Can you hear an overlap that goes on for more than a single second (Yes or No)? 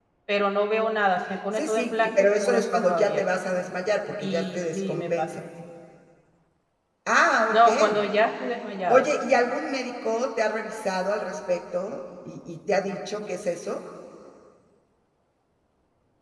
Yes